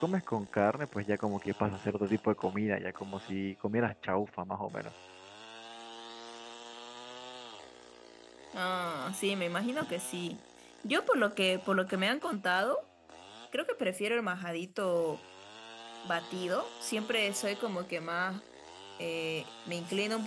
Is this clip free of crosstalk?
Yes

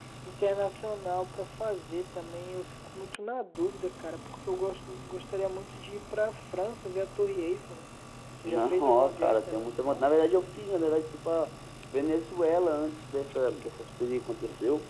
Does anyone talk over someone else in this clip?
Yes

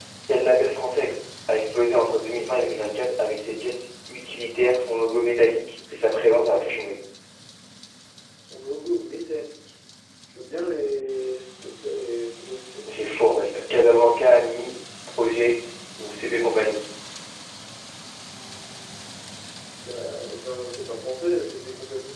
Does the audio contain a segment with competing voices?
No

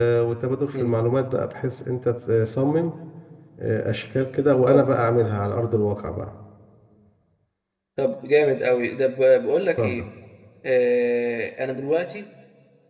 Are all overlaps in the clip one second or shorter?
Yes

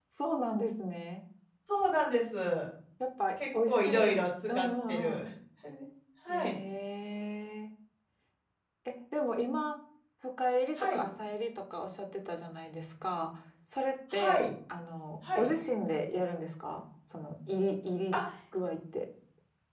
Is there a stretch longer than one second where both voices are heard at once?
Yes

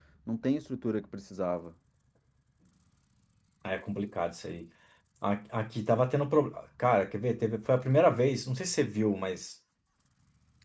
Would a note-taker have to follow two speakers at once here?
No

